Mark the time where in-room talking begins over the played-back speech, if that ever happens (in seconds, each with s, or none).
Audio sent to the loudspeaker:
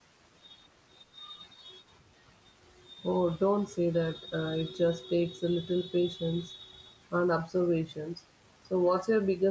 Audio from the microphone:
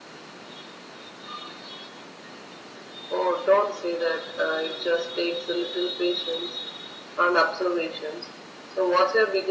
none